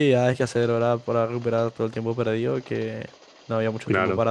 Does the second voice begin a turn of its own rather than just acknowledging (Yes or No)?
No